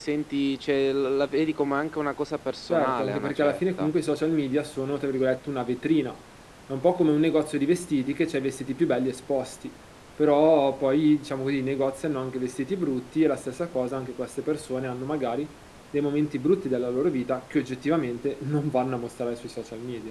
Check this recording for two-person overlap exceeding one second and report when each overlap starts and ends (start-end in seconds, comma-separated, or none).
2.7-3.9